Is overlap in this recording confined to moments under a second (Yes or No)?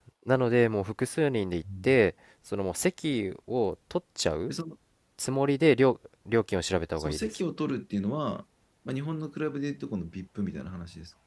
Yes